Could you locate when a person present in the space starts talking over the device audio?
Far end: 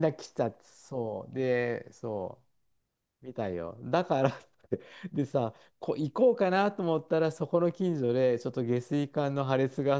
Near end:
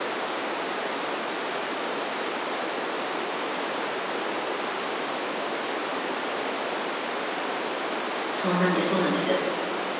8 s

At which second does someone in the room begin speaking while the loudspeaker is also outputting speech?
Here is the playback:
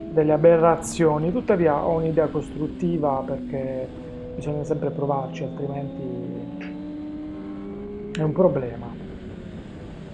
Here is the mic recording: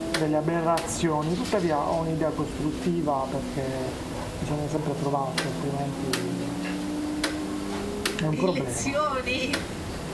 8 s

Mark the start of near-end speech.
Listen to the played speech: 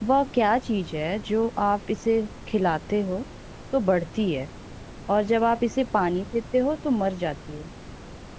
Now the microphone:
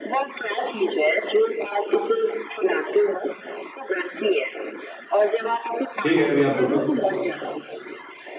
6 s

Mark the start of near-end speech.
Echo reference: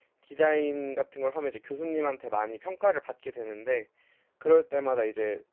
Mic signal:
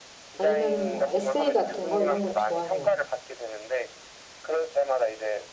0 s

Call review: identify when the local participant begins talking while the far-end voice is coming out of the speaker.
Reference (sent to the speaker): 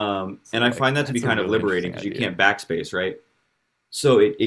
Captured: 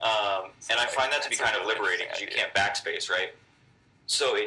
none

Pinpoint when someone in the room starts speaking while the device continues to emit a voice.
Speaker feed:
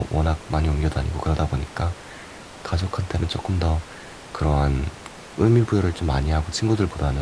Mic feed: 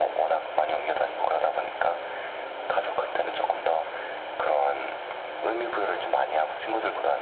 none

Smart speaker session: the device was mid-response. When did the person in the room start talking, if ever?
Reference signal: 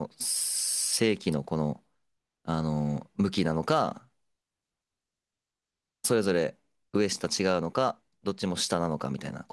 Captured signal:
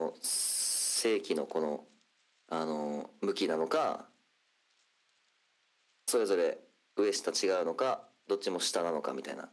none

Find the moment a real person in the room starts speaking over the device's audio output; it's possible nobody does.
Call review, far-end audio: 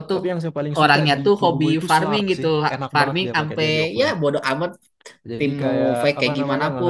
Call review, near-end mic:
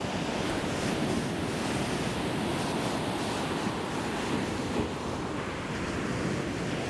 none

